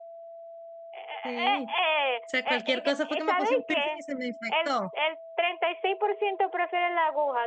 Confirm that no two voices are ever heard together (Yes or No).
No